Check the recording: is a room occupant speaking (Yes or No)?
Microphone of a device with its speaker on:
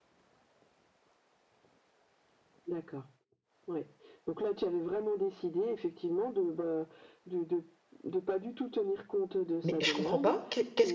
Yes